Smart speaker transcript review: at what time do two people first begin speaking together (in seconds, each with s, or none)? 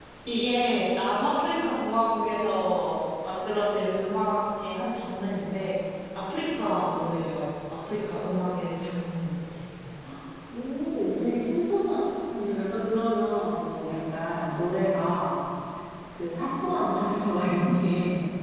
none